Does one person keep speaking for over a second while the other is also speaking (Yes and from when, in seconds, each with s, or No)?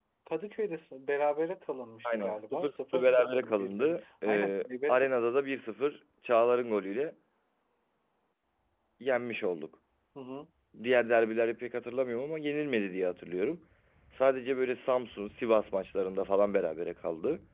Yes, from 2.0 s